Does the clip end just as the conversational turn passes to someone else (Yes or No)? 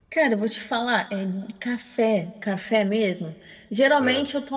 No